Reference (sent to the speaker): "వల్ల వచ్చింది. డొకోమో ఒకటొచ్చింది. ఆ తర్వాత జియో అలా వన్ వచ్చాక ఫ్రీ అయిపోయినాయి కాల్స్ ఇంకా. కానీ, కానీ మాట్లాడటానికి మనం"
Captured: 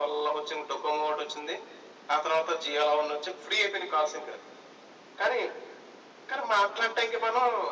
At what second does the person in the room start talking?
none

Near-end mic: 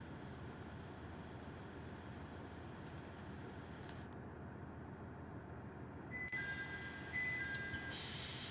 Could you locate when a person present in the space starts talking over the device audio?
none

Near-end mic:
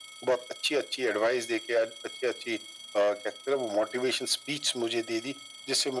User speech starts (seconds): none

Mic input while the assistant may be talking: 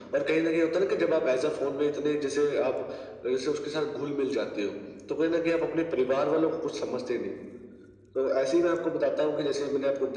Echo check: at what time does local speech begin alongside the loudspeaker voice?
none

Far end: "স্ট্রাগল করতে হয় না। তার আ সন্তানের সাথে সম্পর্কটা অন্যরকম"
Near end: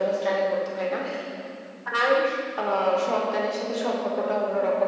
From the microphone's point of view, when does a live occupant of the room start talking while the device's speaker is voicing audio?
none

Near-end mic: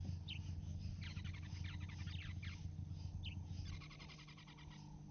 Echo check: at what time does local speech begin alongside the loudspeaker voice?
none

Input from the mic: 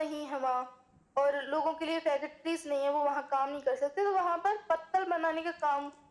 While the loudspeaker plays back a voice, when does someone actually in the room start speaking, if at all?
none

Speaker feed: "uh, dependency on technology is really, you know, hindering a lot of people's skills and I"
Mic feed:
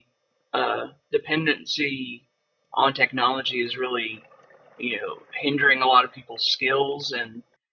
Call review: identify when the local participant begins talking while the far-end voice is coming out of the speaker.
none

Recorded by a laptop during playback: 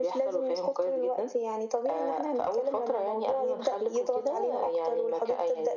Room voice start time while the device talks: none

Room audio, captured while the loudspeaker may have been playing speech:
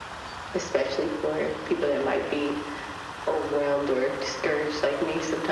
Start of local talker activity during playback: none

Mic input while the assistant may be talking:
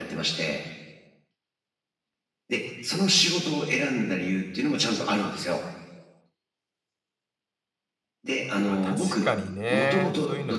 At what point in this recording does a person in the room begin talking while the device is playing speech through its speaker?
9 s

